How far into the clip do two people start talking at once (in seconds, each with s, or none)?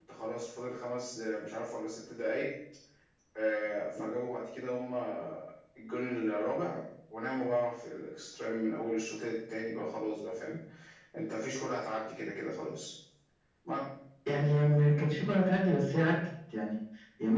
none